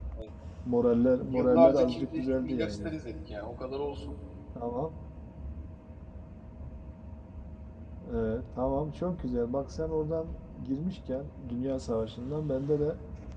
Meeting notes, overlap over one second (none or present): present